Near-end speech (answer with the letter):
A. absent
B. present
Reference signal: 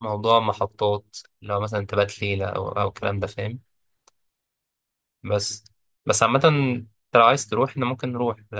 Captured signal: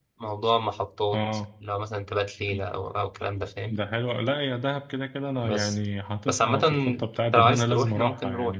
B